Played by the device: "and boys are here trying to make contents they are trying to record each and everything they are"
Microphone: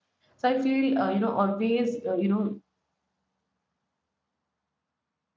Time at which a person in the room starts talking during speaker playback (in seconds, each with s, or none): 0.4 s